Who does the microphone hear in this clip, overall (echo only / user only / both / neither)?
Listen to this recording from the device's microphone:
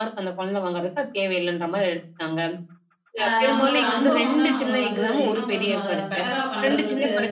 both